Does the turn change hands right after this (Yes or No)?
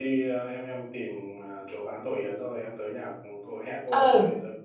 Yes